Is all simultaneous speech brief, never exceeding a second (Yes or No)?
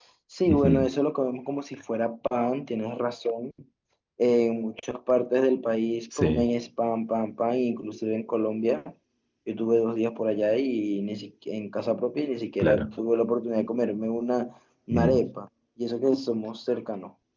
Yes